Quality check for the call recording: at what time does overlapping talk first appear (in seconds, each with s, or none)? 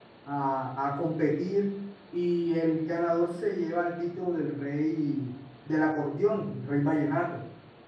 none